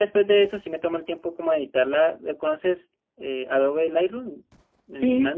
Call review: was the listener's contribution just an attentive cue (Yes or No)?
No